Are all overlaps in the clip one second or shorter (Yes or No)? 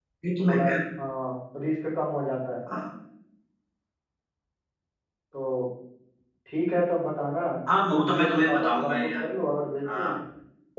No